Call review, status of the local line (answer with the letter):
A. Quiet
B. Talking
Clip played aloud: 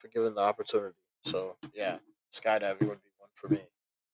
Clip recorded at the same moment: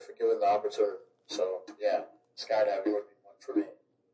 A